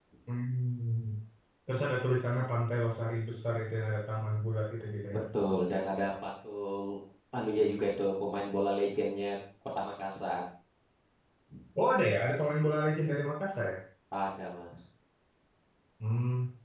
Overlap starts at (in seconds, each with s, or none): none